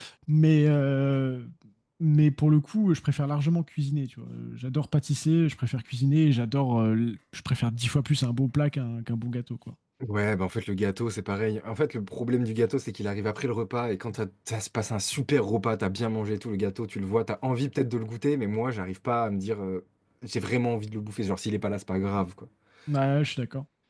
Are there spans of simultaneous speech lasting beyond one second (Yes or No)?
No